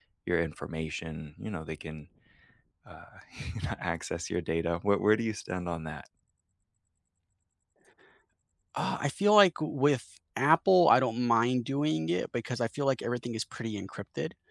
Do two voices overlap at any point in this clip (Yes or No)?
No